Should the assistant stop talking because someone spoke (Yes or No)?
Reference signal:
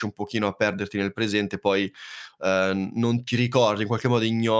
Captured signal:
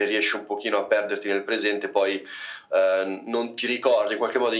No